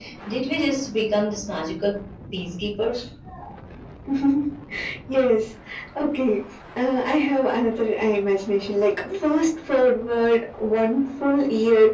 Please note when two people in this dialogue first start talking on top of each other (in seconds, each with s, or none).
none